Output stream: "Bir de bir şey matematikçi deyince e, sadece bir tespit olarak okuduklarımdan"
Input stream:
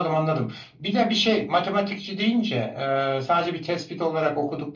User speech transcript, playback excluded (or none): none